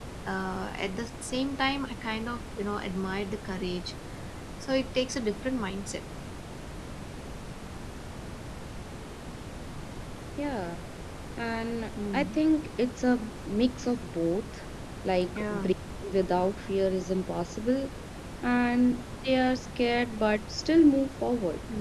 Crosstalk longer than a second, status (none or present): none